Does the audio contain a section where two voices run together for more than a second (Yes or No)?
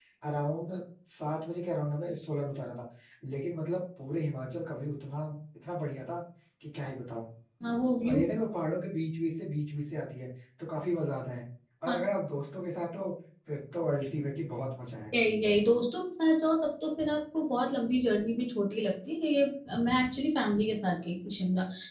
No